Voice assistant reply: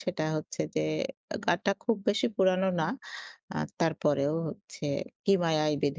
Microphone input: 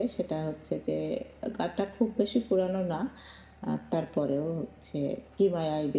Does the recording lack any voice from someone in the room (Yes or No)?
Yes